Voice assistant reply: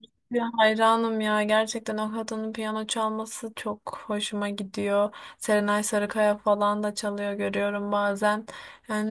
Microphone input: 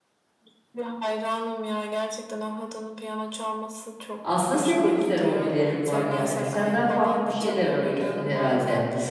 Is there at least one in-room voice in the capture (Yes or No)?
Yes